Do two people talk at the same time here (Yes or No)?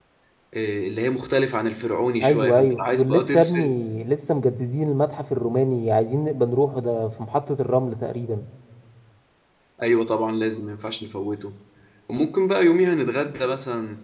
Yes